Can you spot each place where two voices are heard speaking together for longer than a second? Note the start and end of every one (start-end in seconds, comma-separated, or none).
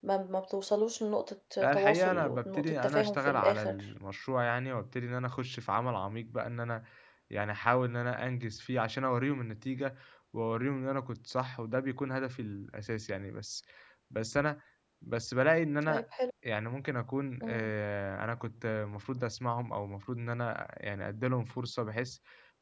1.6-3.8